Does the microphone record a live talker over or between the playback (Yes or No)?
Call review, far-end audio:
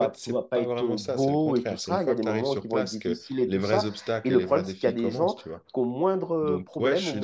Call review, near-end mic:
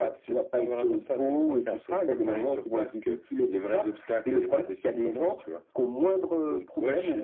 No